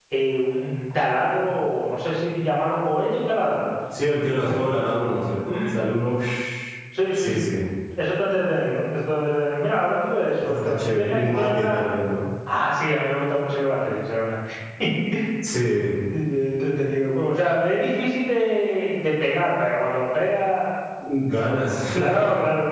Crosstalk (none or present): present